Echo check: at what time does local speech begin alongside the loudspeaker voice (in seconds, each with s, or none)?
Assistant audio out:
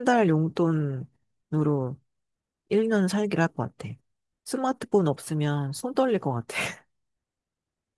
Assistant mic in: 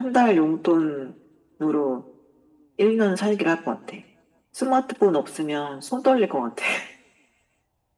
none